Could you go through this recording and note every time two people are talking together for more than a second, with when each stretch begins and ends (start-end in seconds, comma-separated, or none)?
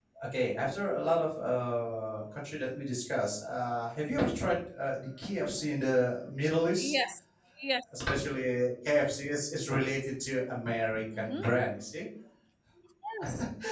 none